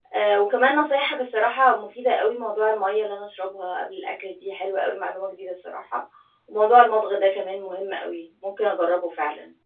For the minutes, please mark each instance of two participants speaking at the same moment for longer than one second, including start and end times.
none

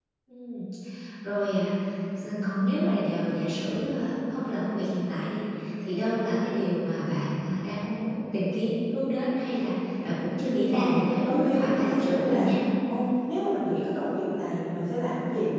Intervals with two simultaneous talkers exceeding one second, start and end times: 10.7-12.5

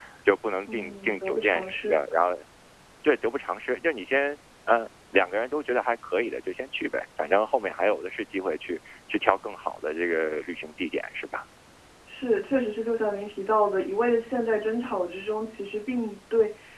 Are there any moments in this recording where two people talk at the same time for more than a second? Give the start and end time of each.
0.7-2.0

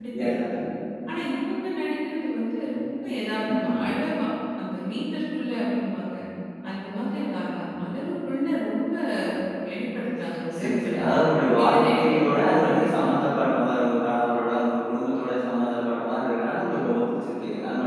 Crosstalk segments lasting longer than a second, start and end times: 10.6-13.1

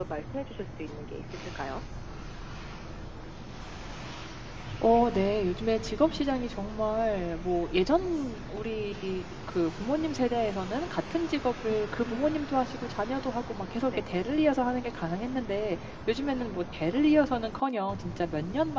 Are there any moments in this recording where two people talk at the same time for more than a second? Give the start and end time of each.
none

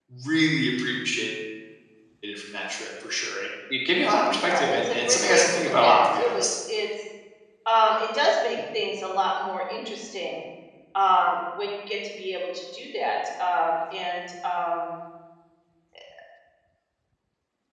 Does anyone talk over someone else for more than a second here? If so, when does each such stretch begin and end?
4.3-6.5

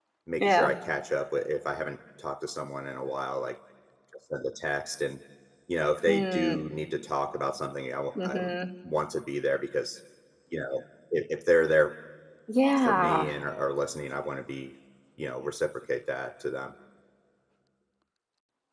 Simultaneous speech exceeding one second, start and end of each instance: none

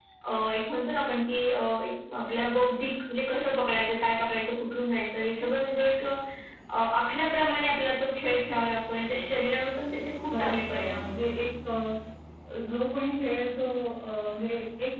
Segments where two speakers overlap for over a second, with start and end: 9.0-11.3

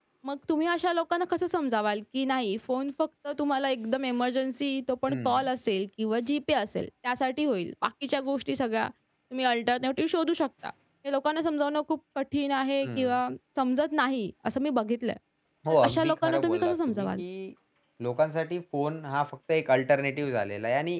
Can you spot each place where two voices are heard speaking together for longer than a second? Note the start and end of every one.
15.7-17.2

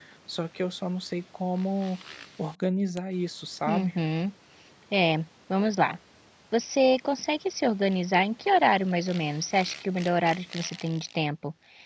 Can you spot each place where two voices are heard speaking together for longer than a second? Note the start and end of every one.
none

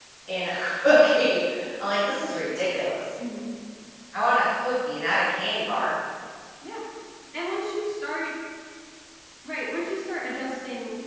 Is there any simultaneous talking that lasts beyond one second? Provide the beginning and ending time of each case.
none

